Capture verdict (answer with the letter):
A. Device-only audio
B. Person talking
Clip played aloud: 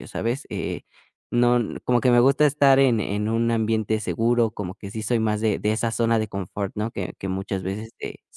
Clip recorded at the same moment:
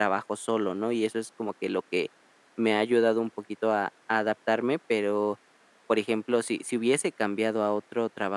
B